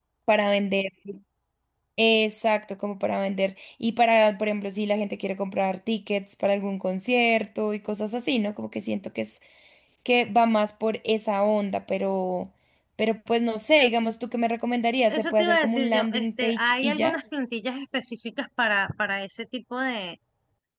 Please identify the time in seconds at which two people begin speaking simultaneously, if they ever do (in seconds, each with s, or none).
15.1 s